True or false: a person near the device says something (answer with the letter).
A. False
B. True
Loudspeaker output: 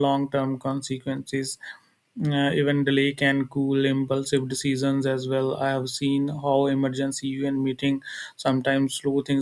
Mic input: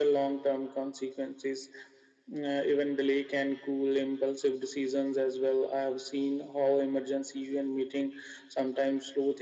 A